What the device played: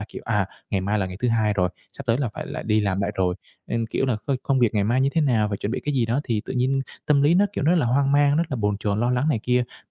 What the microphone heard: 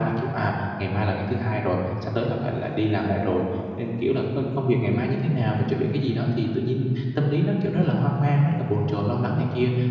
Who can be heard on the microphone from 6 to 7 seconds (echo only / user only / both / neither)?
echo only